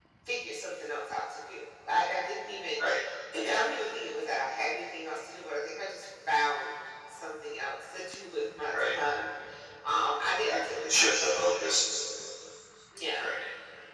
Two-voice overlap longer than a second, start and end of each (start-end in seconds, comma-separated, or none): 10.4-11.8